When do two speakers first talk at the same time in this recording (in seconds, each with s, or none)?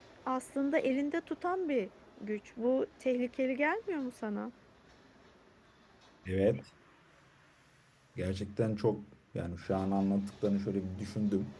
none